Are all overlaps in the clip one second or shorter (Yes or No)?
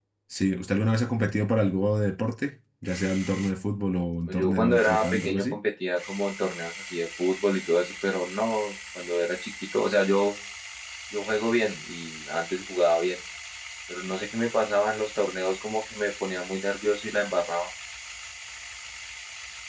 No